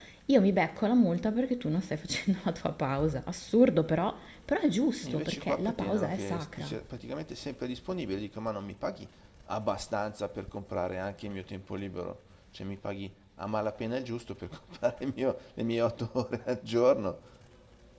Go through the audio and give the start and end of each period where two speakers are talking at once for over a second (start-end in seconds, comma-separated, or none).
5.0-6.8